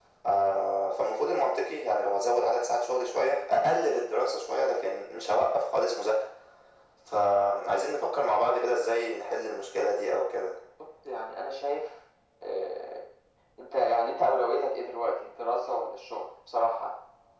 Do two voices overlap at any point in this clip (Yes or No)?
No